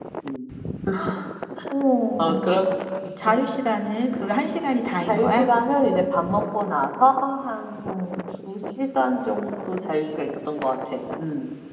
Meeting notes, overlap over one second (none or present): none